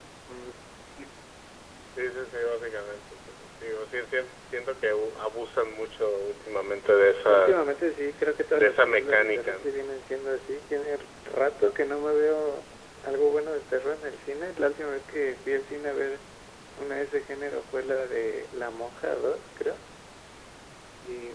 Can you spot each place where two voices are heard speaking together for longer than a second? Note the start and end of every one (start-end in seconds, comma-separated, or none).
8.5-9.8